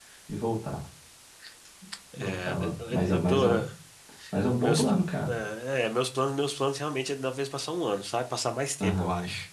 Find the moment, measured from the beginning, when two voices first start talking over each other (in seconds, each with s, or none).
2.2 s